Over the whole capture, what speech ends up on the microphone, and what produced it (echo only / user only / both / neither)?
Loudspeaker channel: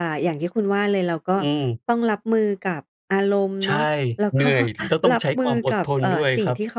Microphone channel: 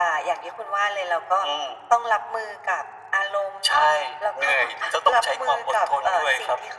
echo only